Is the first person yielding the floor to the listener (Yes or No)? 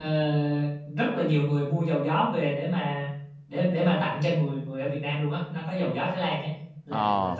No